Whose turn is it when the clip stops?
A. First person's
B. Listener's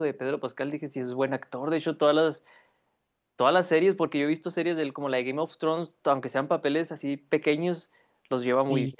B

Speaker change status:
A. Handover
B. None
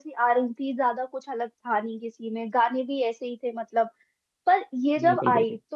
B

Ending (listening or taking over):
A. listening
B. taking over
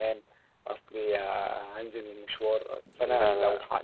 A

